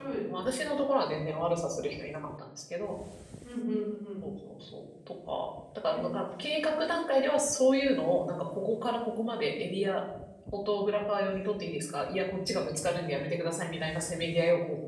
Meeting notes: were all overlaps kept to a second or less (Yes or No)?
Yes